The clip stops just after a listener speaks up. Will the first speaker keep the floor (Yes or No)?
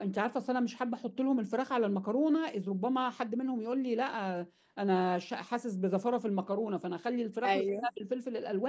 Yes